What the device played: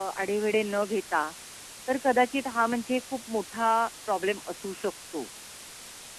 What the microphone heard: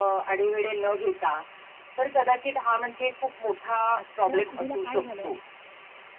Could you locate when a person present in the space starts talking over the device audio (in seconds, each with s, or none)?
4.0 s